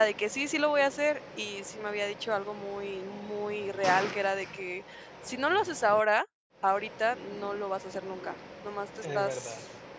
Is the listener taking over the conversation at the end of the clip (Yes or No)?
No